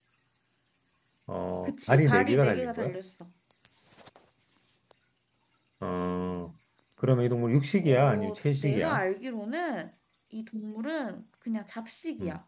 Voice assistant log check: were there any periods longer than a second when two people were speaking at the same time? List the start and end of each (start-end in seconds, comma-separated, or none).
1.7-3.0, 7.8-9.0